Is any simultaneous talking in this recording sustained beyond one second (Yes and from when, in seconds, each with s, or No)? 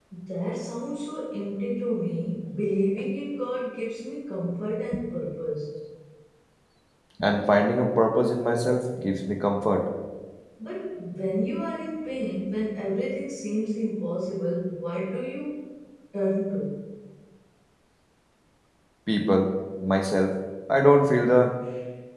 No